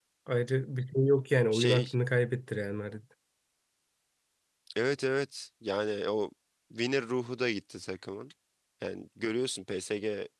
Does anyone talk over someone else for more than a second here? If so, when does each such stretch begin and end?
none

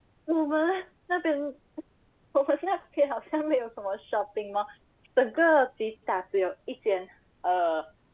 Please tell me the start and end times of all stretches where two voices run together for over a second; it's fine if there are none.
none

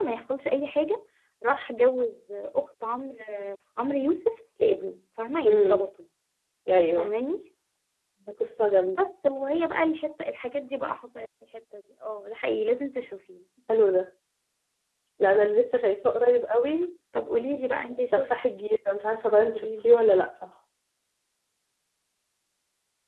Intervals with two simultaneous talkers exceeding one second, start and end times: none

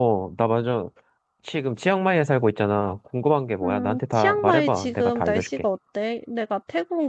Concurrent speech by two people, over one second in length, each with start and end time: 3.6-5.6

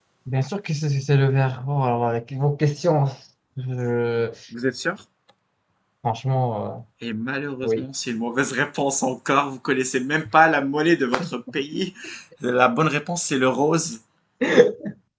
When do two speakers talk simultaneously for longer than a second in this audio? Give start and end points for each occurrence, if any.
none

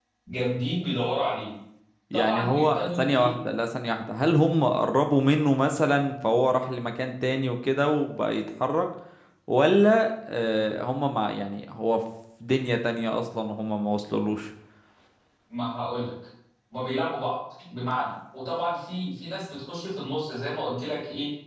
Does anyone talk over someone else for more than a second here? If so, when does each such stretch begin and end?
2.1-3.3

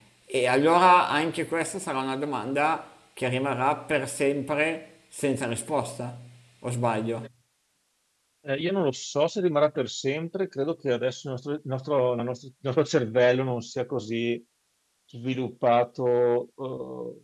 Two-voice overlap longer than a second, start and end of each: none

